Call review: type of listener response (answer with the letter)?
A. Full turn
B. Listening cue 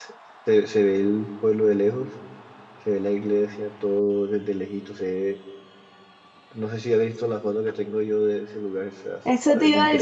A